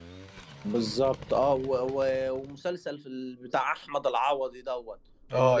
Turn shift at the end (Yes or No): No